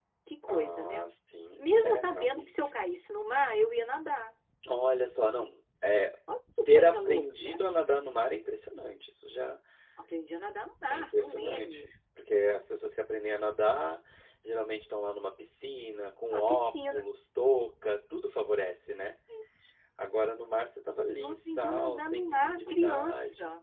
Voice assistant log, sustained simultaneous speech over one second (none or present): present